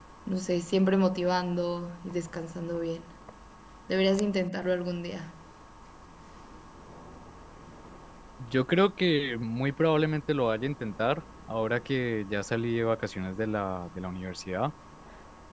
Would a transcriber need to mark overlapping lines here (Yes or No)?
No